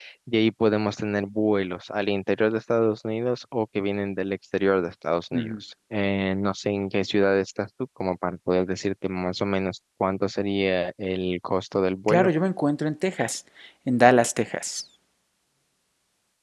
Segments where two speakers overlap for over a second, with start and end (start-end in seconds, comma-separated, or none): none